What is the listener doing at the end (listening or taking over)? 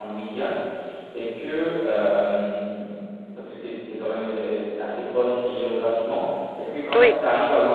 listening